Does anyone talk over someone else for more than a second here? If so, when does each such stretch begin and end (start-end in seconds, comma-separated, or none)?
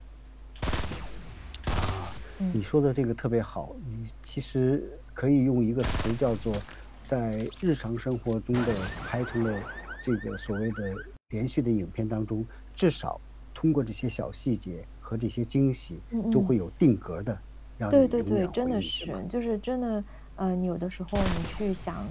17.9-19.2